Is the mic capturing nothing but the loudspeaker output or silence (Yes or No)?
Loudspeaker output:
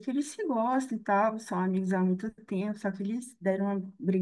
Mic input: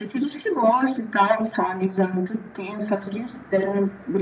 Yes